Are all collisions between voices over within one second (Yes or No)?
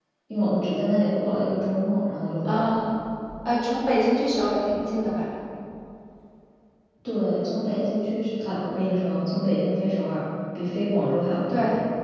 Yes